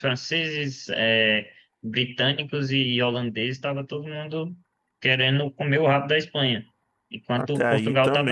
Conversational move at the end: taking over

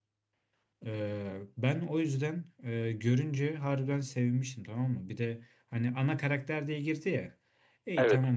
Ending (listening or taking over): listening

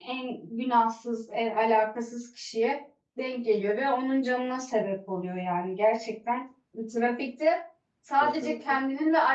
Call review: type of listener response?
listening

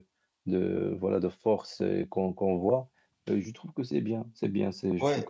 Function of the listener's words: taking over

